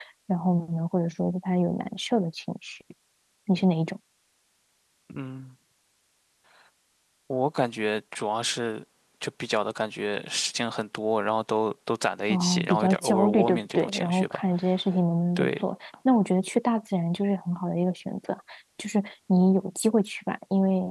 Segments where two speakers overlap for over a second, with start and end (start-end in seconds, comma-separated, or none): 12.3-14.4